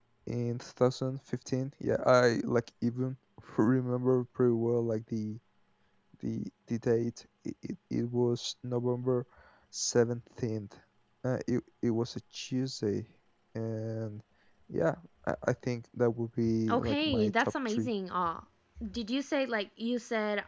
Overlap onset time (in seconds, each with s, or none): 16.4 s